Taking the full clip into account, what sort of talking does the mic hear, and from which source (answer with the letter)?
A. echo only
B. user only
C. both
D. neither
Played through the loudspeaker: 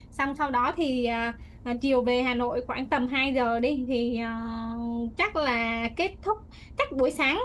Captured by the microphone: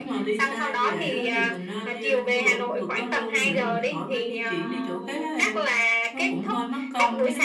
C